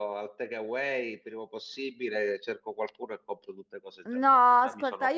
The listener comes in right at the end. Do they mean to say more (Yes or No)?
Yes